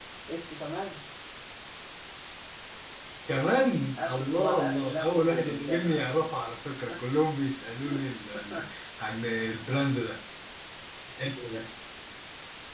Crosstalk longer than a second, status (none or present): present